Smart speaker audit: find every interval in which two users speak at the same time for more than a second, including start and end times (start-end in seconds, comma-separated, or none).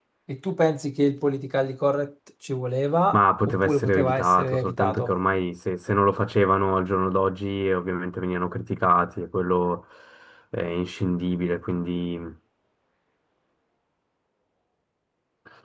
3.1-5.1